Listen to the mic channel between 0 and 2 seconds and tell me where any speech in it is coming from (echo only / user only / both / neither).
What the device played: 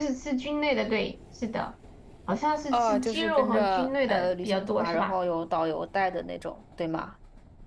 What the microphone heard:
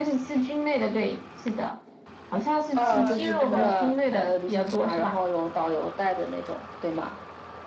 echo only